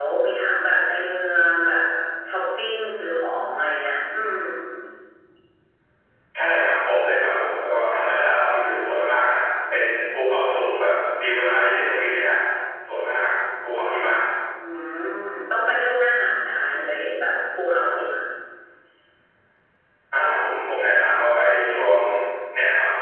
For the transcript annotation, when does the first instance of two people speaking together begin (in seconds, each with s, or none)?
none